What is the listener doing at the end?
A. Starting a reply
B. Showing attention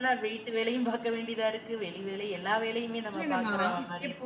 A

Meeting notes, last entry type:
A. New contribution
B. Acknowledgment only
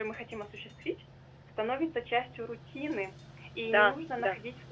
B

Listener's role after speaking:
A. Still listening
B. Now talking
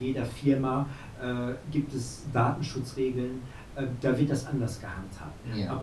A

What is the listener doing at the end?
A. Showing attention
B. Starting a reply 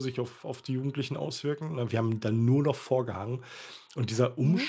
A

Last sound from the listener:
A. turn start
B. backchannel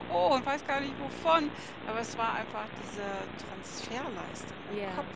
A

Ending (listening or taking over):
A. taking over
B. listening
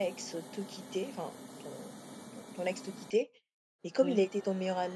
B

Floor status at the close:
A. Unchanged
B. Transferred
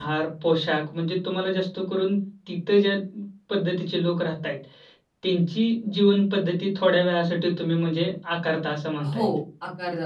B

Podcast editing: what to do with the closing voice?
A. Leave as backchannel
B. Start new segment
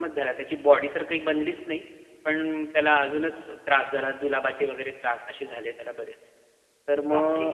A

